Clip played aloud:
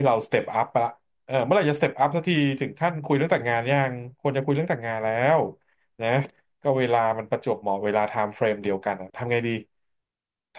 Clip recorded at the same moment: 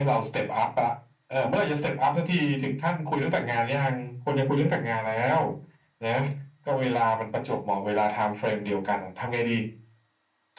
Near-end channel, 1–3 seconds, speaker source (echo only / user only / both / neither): echo only